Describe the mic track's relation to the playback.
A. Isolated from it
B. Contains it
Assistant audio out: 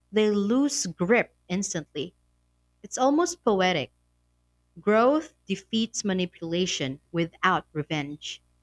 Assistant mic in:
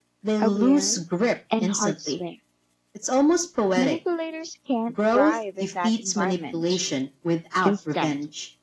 B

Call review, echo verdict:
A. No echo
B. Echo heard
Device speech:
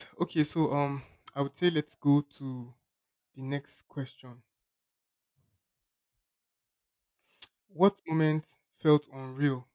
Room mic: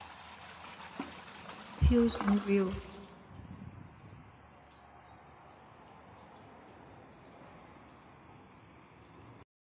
A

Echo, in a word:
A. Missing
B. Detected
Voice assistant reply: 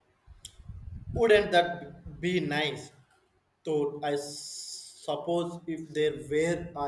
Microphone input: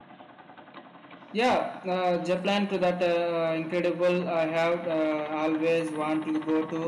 A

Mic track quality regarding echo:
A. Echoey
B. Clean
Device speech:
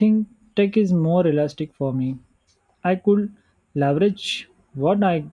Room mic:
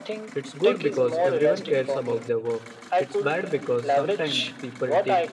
A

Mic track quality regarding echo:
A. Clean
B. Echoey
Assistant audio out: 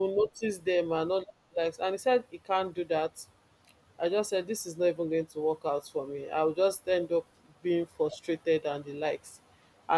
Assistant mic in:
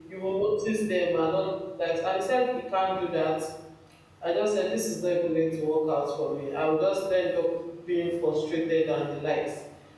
B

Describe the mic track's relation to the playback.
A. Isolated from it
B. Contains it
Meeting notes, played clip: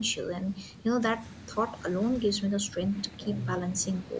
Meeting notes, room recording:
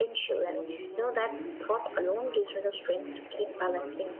B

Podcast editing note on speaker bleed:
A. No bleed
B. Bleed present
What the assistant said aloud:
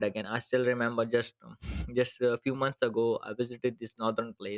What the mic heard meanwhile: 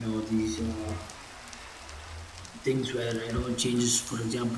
A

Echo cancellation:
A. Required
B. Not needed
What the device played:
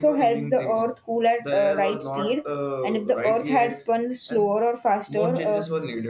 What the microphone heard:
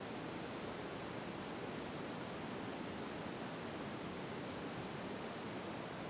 B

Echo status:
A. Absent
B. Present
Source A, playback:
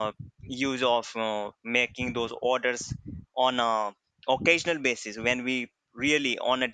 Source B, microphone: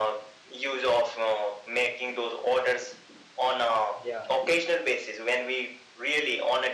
B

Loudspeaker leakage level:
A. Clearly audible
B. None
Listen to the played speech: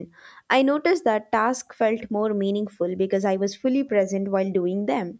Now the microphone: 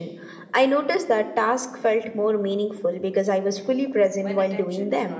A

